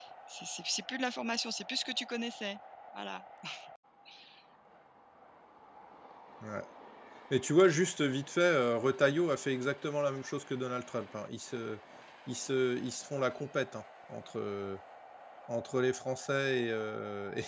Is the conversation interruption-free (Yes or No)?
Yes